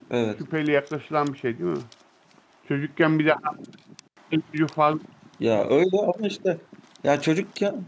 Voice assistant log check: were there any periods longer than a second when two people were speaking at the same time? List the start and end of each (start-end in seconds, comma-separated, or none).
none